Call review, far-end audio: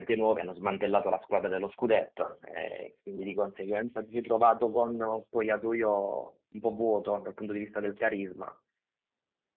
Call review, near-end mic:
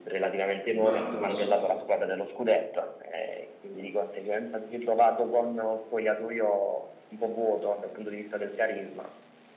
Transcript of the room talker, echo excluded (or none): Ma a posto.